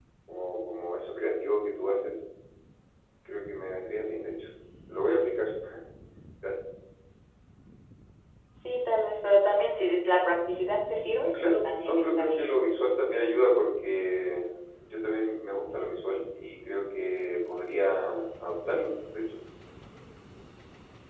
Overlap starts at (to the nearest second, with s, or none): 11 s